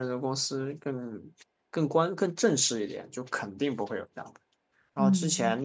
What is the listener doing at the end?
listening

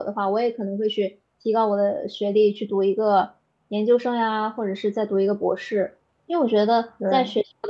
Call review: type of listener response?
listening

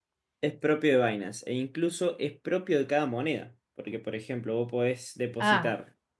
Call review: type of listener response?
taking over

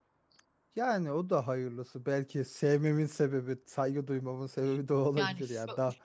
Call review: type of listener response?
taking over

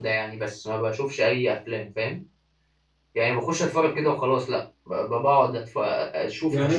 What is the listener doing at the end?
taking over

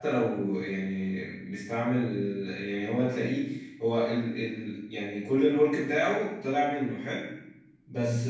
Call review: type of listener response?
listening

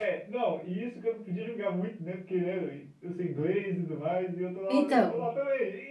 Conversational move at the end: listening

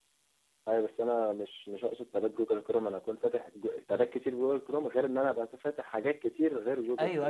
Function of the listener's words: taking over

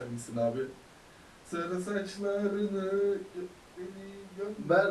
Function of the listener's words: taking over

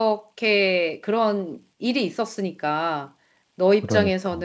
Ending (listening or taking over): listening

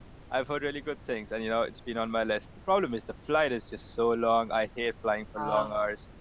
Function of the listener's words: listening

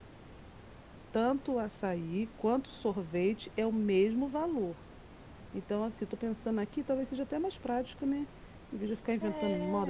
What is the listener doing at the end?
listening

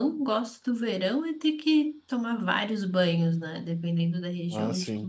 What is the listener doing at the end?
listening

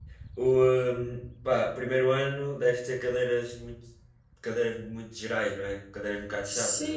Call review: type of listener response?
taking over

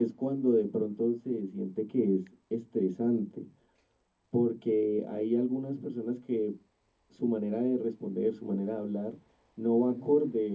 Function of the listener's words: listening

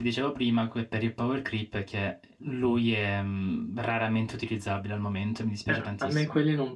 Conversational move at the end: taking over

